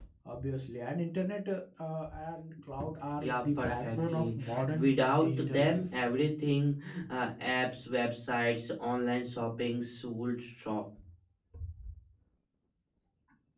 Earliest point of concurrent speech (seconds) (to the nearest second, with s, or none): 3 s